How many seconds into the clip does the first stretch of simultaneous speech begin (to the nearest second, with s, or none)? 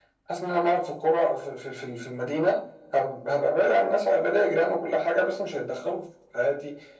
none